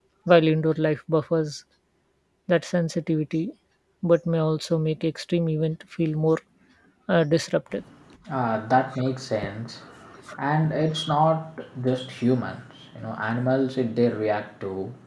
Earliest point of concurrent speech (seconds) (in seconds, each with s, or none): none